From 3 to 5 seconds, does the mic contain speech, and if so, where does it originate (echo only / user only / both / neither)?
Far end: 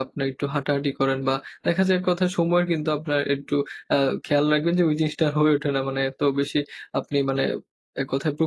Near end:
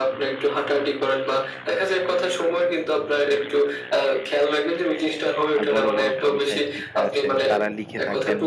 echo only